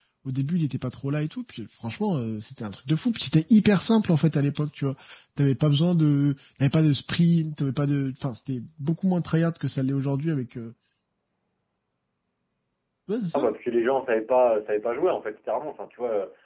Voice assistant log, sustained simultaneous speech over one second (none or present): none